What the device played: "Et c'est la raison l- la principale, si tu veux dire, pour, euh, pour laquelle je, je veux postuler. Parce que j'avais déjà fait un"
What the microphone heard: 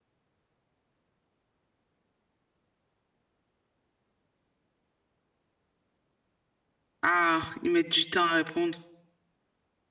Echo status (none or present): none